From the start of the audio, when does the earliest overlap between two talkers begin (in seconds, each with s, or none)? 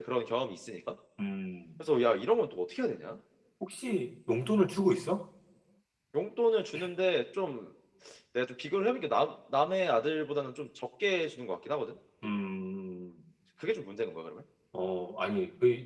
none